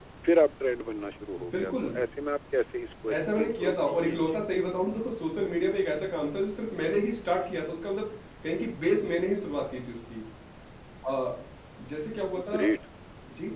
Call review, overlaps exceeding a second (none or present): present